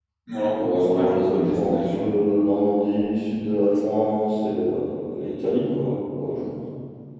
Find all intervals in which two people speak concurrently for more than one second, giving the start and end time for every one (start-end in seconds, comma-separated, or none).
0.6-2.1